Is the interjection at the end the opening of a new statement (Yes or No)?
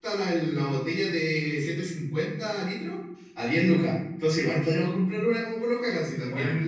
Yes